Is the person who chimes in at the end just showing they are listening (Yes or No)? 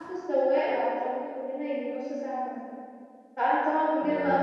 Yes